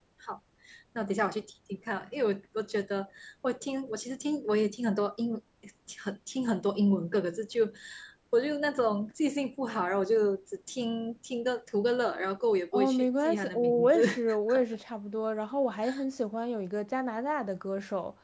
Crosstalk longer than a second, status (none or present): present